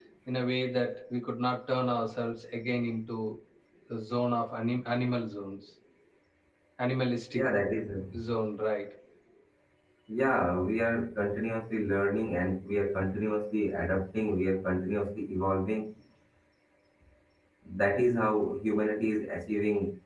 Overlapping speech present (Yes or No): No